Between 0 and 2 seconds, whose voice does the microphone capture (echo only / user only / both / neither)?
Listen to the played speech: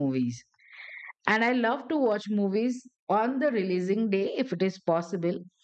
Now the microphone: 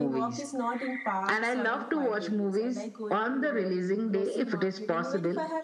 both